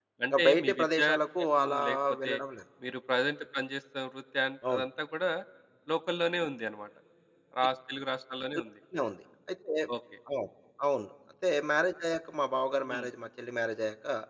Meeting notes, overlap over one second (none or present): present